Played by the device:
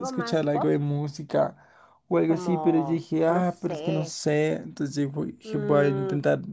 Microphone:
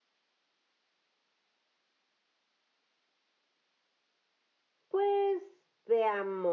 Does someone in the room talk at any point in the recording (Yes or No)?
Yes